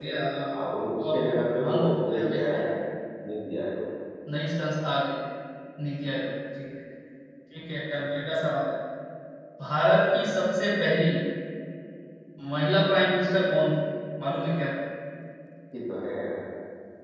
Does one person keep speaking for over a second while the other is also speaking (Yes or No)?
Yes